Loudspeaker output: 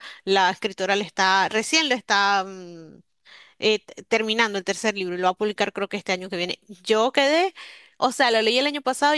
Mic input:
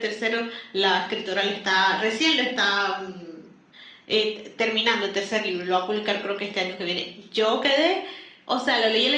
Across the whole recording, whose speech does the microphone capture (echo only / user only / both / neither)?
echo only